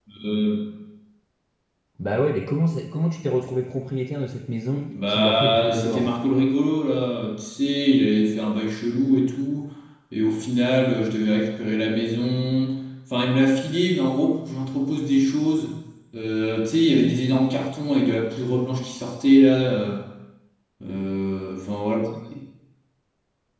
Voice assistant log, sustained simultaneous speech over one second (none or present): present